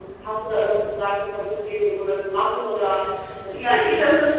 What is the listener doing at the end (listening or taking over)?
taking over